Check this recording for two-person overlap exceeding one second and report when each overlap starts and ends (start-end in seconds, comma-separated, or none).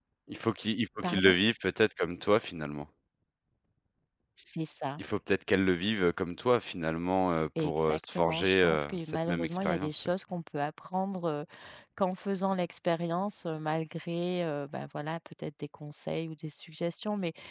7.6-10.1